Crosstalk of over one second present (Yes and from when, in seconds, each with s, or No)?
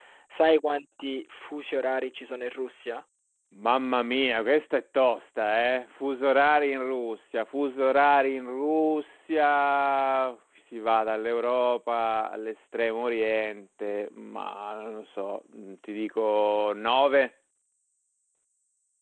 No